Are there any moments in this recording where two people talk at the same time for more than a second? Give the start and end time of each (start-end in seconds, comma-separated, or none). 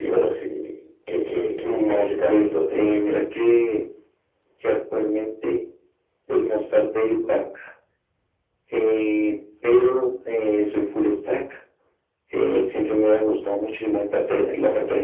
1.6-3.2